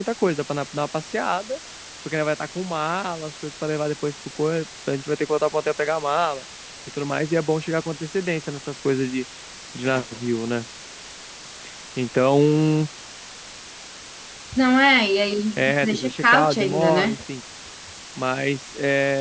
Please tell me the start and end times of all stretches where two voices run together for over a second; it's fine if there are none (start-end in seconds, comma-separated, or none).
15.6-17.1